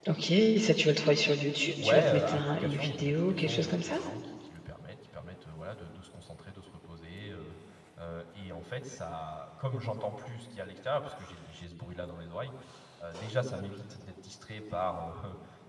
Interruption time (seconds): 2 s

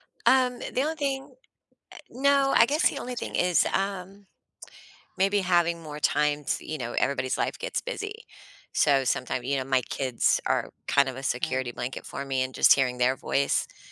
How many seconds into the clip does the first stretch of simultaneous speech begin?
2 s

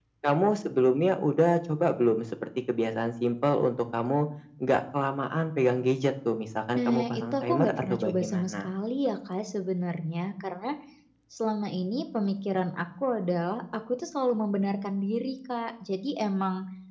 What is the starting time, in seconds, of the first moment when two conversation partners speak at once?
7 s

